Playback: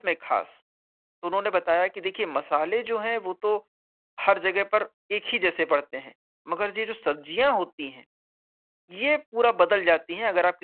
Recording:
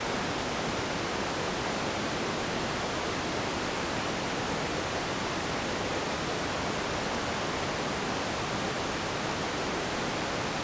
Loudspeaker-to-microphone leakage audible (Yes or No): No